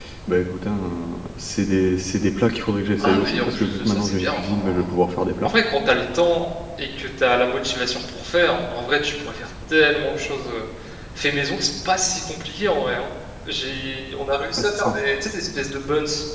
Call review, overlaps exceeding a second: present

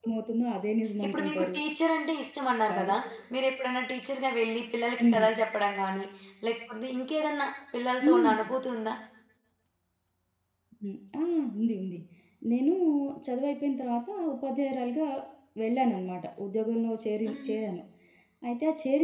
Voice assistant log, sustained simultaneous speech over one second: none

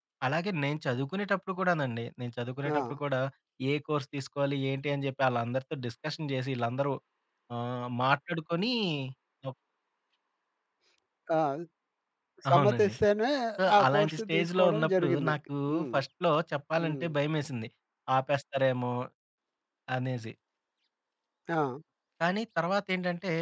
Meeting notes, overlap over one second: present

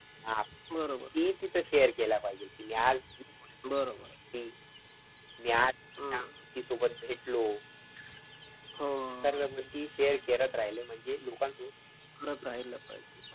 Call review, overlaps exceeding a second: none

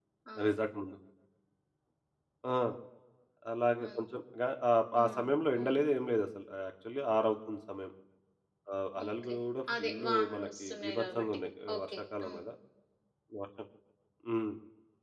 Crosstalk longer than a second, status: present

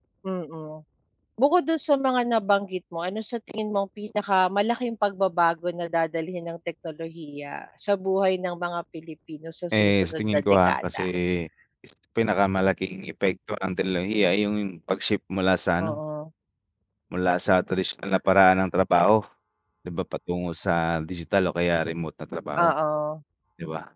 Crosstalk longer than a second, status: present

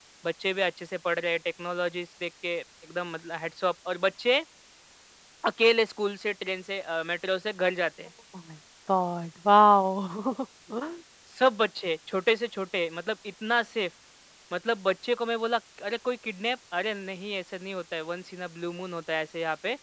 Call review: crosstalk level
none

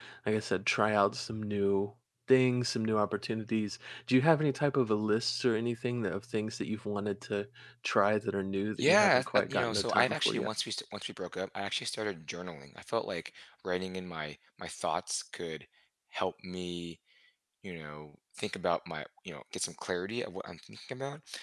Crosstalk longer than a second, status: present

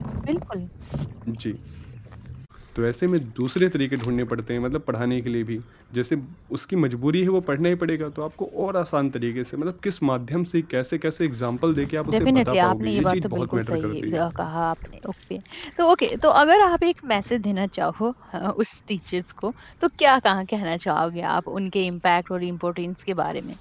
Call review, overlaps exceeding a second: present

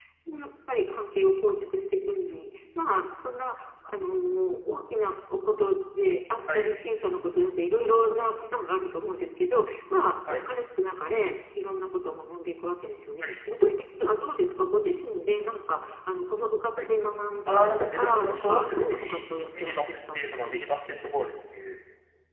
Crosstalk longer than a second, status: present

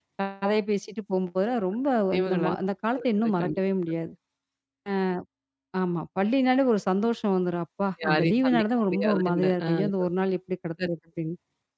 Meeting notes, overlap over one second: present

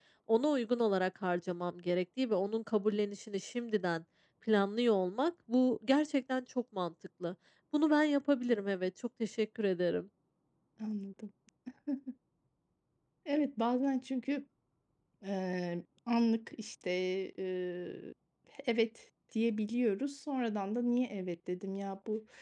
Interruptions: none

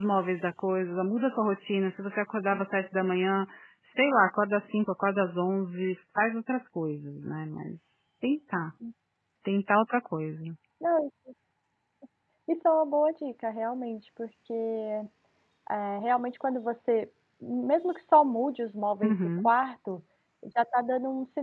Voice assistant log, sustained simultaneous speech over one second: none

